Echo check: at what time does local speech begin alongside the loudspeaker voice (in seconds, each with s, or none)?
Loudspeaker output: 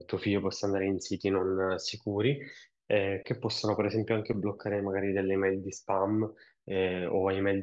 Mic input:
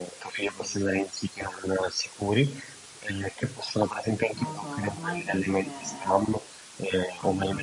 4.3 s